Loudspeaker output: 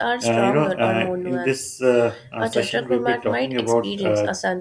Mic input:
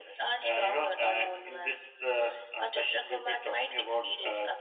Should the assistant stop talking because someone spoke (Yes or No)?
No